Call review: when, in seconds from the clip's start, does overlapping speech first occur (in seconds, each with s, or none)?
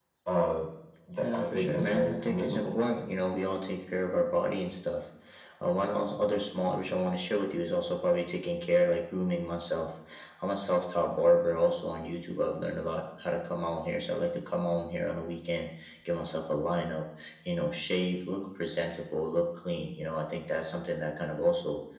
1.2 s